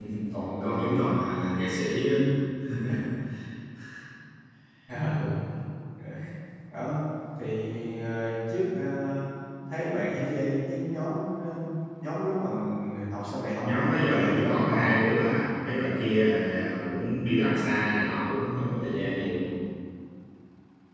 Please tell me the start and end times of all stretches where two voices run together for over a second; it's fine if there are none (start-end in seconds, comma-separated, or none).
13.6-15.0